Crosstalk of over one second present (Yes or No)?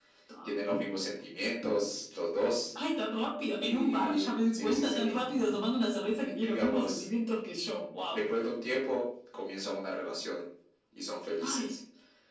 Yes